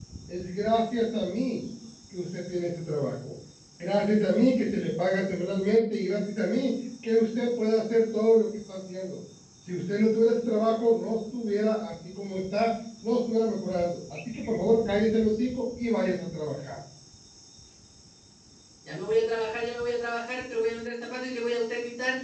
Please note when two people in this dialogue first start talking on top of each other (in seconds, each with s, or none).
none